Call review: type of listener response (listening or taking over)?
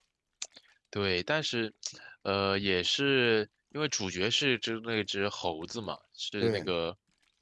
listening